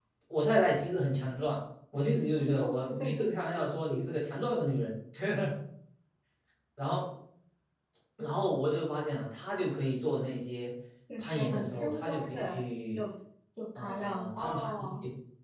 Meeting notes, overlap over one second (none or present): present